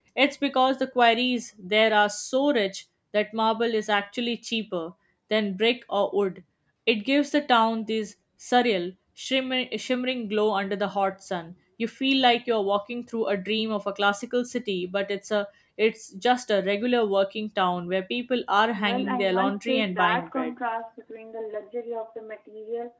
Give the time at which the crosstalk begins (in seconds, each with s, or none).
18.7 s